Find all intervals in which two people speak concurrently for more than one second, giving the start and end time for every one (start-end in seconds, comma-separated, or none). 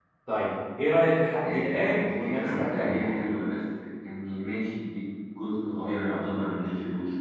1.4-3.0